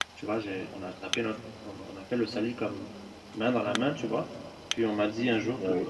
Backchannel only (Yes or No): Yes